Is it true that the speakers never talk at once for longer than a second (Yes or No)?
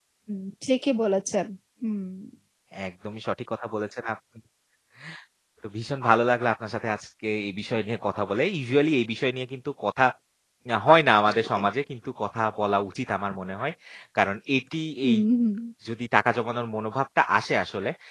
Yes